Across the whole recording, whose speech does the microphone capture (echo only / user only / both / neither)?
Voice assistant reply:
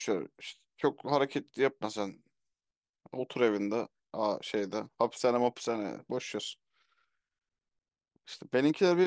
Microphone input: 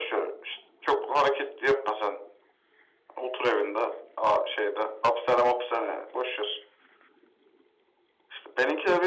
echo only